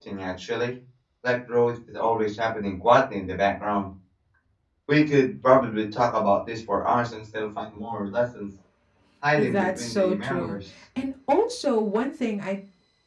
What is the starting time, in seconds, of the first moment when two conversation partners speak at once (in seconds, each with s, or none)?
9.4 s